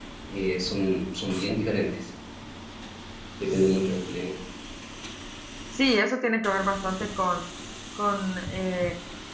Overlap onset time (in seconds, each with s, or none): none